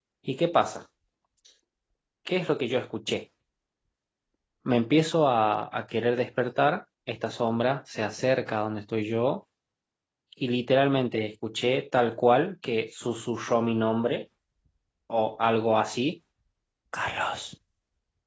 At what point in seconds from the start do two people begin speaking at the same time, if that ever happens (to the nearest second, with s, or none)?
none